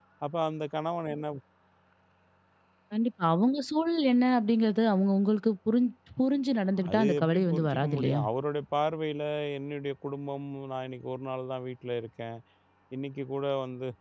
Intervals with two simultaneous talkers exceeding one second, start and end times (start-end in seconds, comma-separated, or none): 6.9-8.2